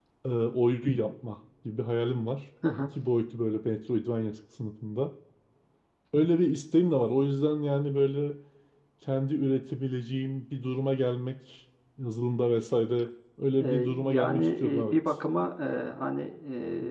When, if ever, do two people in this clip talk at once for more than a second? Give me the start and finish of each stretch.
13.6-15.2

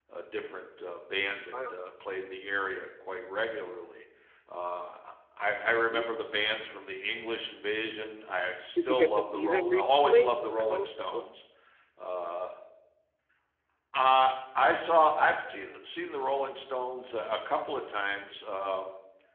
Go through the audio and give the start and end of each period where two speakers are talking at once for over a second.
8.8-10.9

